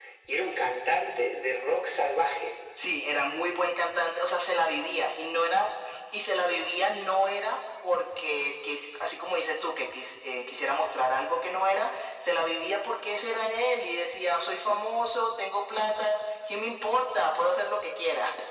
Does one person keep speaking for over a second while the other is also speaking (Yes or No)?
No